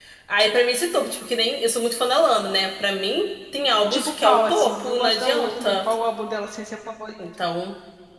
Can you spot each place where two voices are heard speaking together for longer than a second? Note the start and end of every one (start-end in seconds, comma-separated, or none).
3.9-5.8